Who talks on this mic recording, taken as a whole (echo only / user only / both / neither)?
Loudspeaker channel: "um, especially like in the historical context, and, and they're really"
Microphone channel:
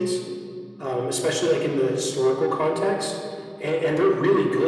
echo only